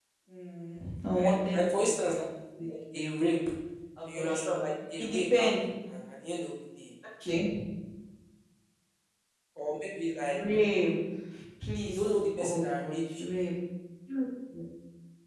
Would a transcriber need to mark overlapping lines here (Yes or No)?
Yes